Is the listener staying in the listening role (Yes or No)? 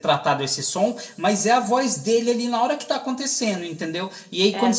Yes